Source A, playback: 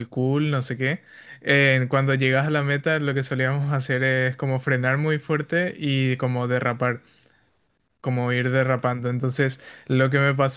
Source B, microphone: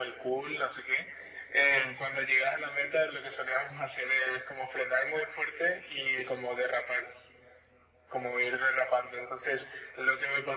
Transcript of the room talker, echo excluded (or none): none